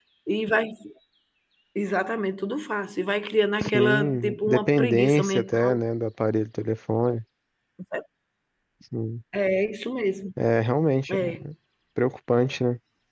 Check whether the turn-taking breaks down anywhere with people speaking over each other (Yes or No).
Yes